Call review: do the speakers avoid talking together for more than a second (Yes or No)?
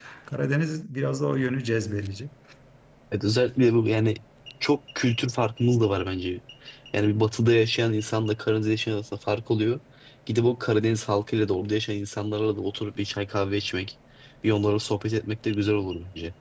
Yes